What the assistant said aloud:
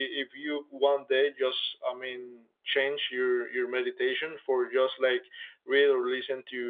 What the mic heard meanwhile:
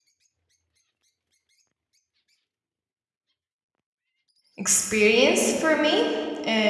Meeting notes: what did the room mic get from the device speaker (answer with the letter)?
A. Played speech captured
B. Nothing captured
B